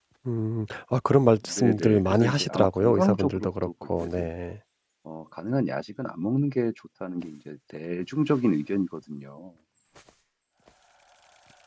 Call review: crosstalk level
present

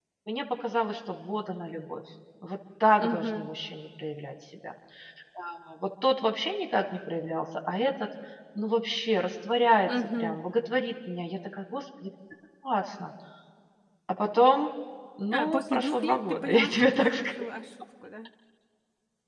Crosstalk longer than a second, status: present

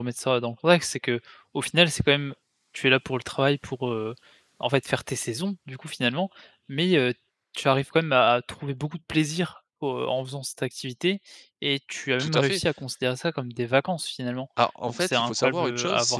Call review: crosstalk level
present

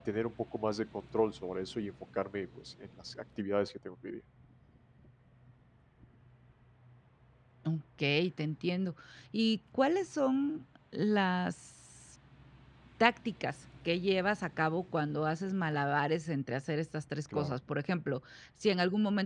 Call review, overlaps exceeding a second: none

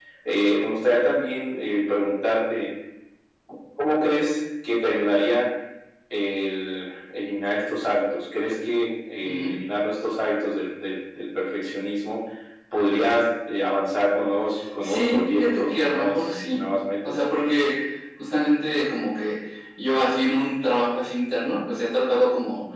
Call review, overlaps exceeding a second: present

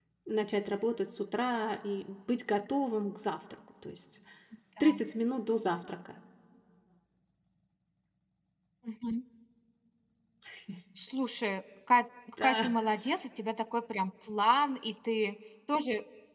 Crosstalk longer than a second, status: none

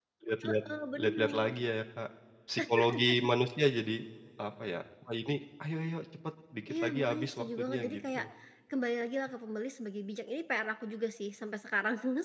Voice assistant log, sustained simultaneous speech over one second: present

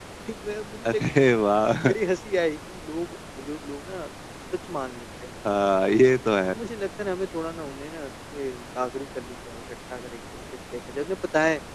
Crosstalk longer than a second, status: none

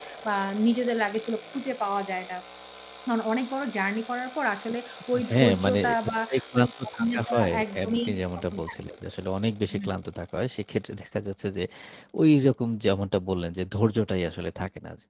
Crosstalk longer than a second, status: present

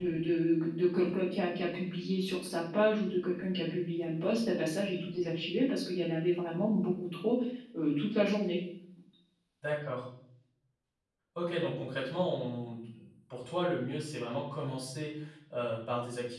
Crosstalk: none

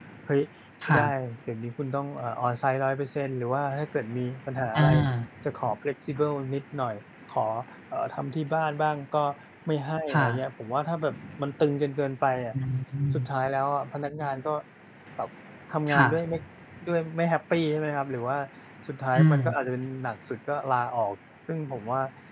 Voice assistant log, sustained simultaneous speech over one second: none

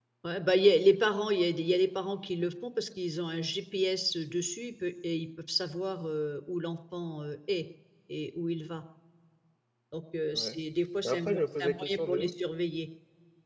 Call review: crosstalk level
present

